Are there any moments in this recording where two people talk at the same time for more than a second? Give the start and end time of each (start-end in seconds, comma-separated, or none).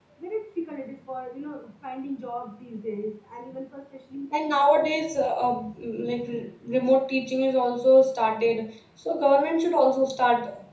none